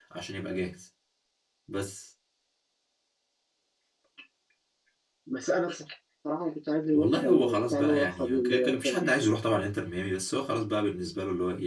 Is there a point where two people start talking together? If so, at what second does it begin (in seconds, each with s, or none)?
6.9 s